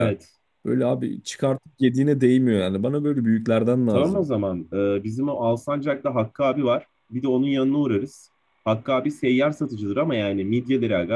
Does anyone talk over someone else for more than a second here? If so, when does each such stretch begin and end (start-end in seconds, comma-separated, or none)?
none